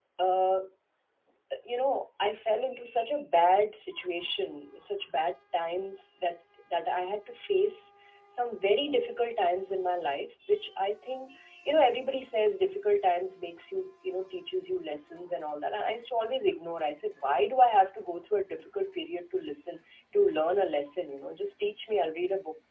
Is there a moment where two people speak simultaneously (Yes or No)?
No